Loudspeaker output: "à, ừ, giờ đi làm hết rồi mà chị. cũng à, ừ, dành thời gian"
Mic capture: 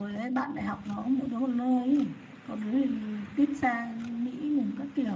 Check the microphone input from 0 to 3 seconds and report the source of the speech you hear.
user only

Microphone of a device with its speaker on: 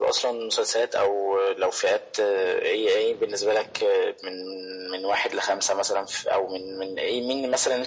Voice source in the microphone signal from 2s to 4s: echo only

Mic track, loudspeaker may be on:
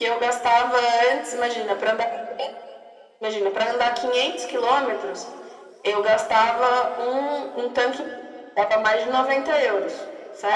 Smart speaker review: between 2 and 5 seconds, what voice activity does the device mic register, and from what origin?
echo only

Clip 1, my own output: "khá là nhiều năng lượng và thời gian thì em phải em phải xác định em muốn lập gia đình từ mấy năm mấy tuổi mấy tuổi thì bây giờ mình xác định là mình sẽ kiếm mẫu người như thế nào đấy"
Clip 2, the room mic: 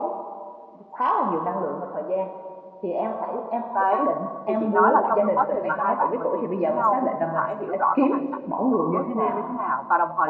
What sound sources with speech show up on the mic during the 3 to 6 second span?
both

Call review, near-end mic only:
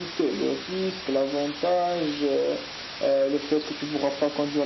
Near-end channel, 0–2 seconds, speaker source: echo only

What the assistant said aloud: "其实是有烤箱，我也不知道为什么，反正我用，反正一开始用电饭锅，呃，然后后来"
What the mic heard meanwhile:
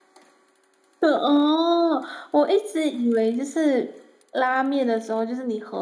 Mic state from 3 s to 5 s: user only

